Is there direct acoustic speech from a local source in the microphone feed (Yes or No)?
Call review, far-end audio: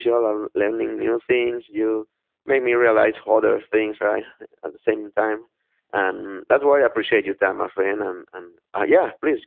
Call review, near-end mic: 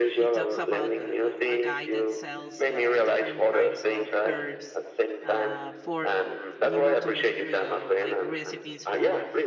Yes